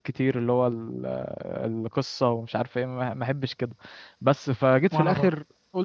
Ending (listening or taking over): listening